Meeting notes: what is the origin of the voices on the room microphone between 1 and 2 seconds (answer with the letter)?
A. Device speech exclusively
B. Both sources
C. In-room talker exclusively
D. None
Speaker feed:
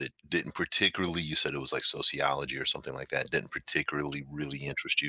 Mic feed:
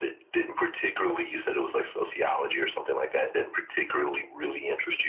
A